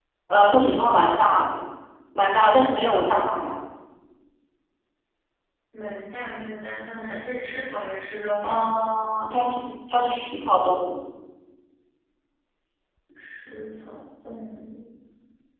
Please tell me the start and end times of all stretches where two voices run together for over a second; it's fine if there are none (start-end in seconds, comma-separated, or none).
none